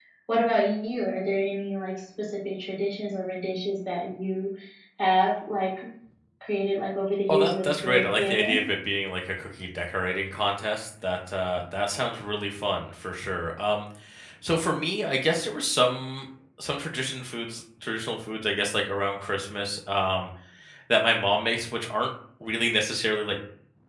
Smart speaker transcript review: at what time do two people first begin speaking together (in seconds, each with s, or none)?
7.3 s